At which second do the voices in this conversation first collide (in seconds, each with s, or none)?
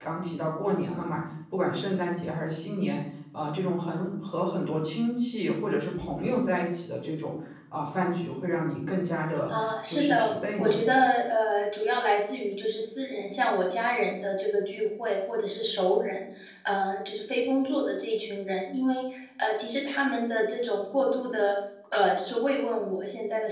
9.5 s